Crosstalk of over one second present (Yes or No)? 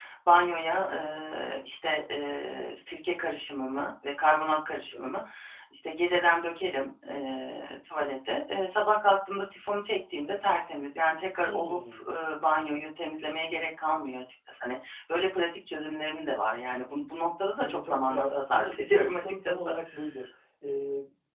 Yes